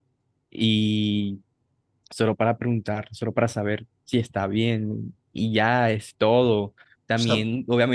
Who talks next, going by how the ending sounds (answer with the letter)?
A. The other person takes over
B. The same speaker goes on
B